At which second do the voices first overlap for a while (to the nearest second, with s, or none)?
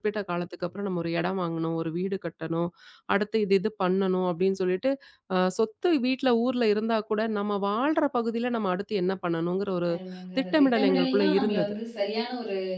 10 s